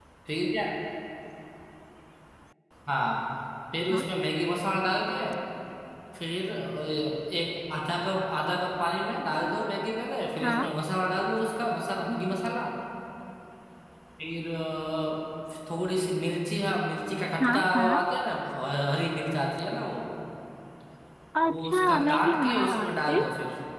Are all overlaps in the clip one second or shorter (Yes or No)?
No